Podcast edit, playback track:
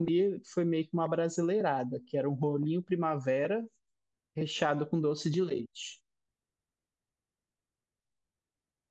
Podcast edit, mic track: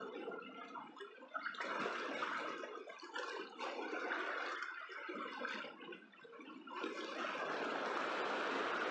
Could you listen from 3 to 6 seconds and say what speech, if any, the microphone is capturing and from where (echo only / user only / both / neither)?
neither